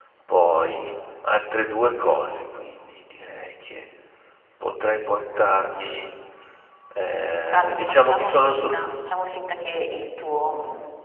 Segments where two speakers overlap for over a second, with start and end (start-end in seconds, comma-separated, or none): 7.5-8.7